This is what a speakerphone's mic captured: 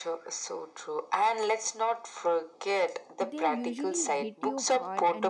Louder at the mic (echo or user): echo